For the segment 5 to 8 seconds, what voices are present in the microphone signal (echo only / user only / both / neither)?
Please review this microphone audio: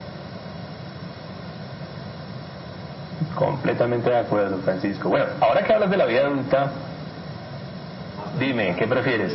echo only